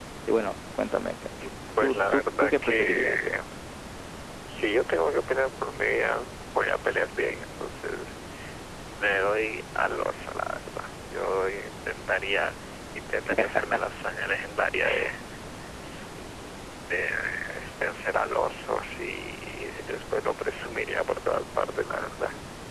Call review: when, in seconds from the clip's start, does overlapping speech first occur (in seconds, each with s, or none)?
1.8 s